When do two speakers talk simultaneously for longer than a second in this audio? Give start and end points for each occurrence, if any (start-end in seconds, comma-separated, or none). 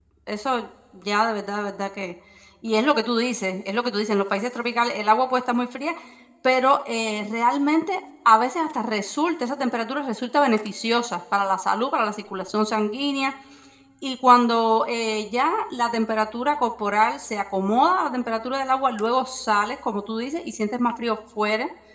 none